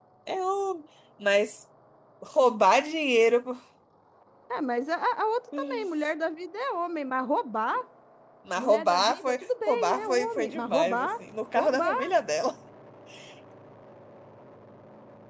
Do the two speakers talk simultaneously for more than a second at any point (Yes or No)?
Yes